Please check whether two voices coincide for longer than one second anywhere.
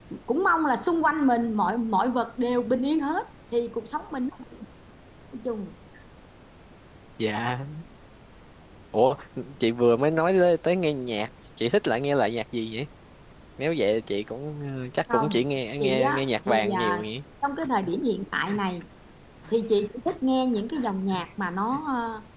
Yes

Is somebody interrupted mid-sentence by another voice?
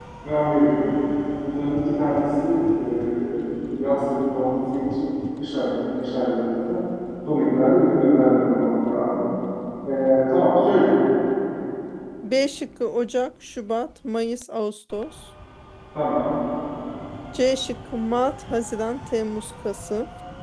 No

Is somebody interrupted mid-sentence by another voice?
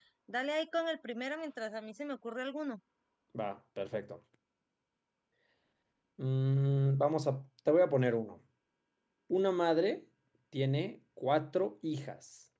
No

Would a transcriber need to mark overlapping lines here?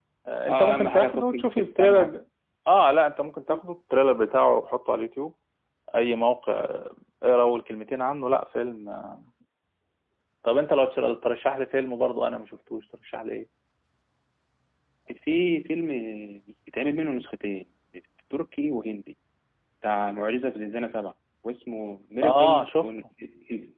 Yes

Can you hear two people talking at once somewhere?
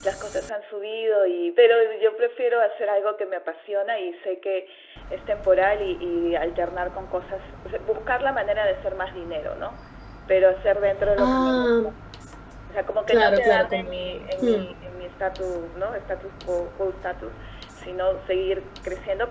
Yes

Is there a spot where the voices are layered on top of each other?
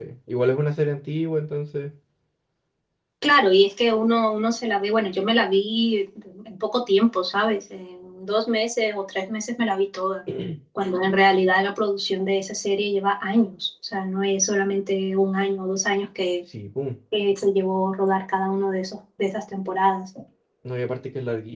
No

